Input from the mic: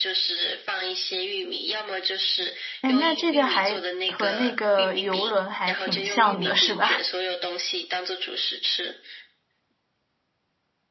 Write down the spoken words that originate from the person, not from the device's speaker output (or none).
哎，那这个还和那个游轮还挺像的，是吧？